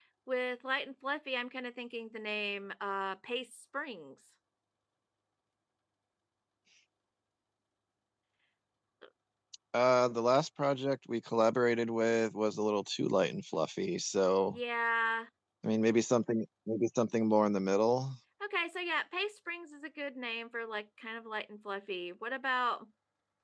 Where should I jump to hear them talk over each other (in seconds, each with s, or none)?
none